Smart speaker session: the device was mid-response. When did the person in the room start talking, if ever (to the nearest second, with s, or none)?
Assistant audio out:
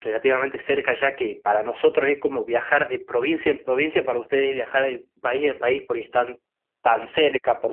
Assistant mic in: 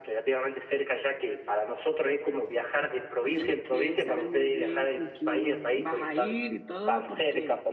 3 s